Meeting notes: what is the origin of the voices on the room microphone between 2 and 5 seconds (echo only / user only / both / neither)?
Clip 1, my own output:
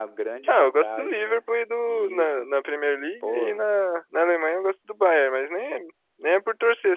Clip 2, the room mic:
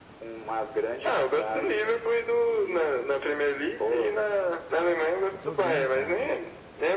echo only